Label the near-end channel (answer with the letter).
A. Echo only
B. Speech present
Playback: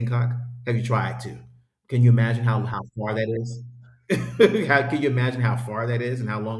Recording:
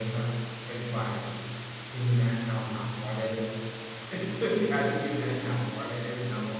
A